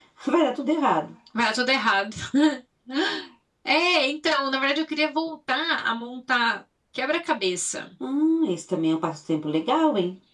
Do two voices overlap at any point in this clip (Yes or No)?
No